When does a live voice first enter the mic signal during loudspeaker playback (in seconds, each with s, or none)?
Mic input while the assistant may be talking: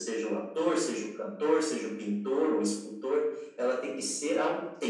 none